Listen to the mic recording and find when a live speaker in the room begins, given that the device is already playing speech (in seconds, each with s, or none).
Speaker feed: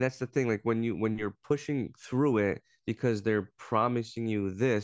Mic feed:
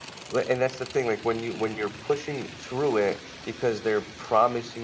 none